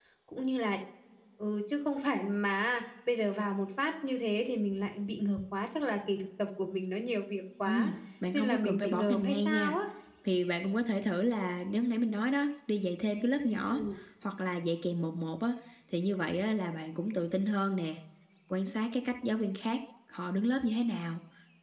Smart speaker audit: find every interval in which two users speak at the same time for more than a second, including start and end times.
8.3-9.7

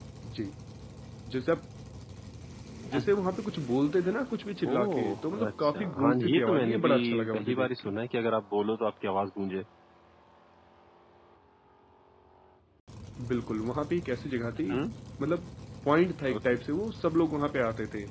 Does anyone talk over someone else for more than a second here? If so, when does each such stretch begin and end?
4.7-7.9

